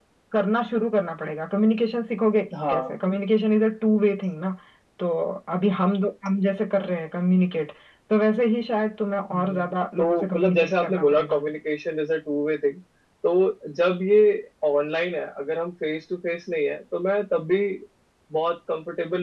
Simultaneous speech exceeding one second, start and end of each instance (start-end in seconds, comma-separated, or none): 9.3-11.4